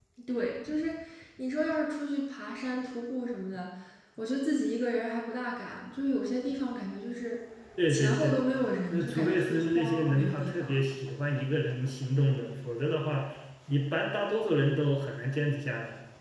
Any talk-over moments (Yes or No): Yes